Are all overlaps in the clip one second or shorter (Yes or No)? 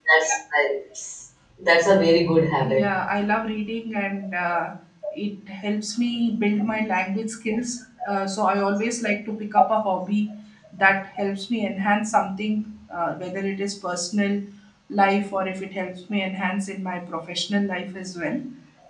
Yes